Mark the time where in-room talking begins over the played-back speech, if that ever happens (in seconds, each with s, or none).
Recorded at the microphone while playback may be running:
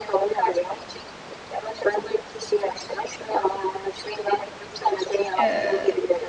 5.4 s